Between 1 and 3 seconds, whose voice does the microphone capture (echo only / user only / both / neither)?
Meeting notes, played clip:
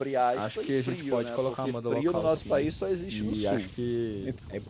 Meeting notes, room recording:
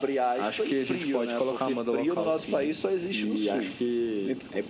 echo only